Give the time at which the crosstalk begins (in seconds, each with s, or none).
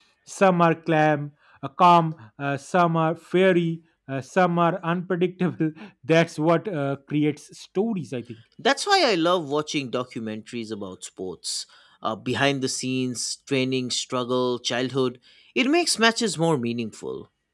none